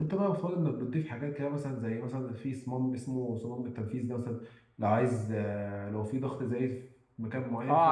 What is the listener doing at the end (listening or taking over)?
taking over